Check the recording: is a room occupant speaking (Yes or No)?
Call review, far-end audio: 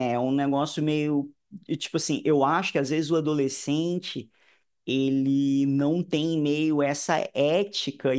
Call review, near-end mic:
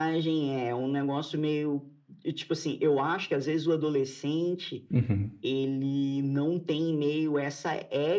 Yes